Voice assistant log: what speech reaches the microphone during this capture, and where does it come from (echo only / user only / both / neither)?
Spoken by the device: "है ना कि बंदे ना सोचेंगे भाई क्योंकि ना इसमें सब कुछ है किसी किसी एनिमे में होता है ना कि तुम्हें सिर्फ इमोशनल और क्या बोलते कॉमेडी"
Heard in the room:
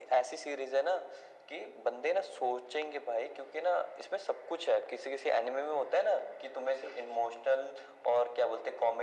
echo only